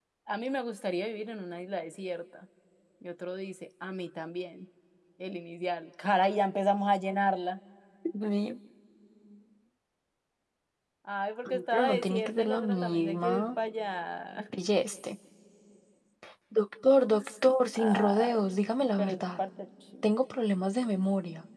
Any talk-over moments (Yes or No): Yes